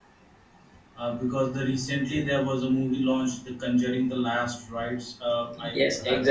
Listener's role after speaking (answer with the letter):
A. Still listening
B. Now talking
B